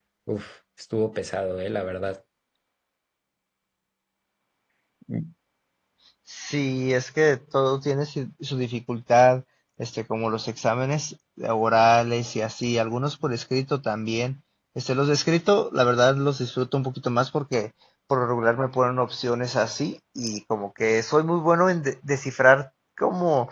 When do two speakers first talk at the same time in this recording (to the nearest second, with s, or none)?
none